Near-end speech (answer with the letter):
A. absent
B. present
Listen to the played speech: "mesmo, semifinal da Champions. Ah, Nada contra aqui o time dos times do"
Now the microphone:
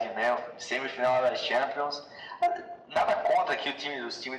A